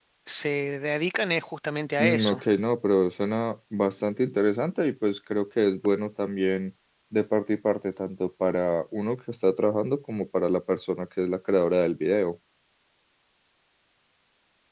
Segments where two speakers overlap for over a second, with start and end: none

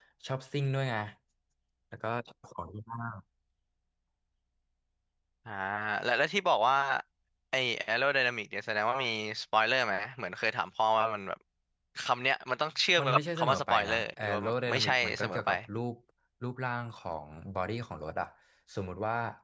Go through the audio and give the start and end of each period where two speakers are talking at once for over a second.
13.0-15.5

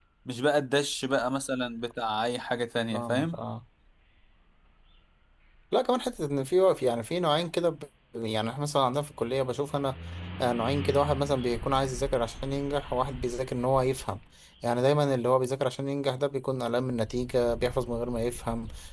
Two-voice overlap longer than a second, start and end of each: none

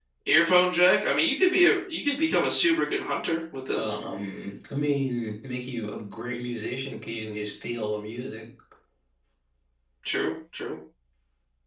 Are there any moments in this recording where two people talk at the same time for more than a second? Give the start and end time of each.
none

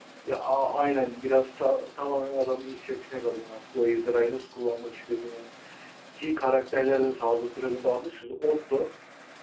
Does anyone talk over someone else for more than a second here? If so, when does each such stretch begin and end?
none

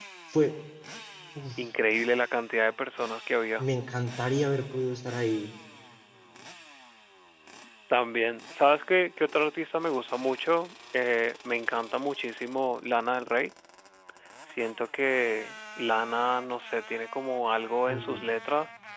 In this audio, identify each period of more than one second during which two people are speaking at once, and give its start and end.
none

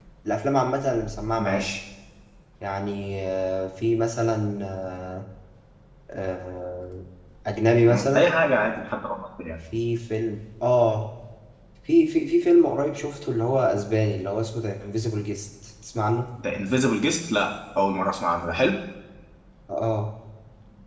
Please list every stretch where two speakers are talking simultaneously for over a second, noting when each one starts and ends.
none

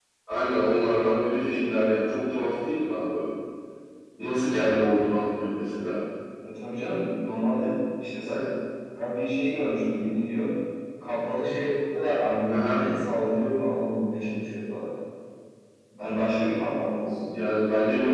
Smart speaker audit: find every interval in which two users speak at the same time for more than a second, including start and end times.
none

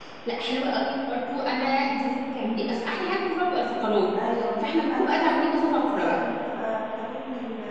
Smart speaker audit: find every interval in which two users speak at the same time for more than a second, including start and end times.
4.6-6.2

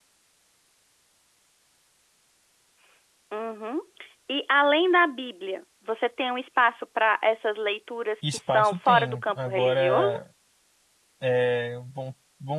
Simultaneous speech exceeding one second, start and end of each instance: 8.3-10.2

